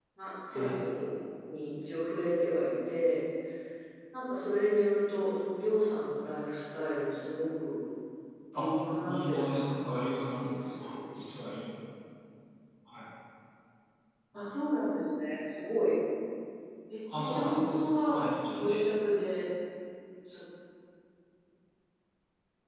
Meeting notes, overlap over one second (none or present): present